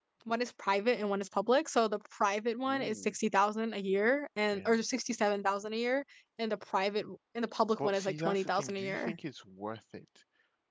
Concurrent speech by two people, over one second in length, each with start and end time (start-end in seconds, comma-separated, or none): 7.8-9.1